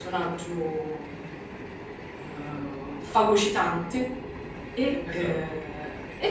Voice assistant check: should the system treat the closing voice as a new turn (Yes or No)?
No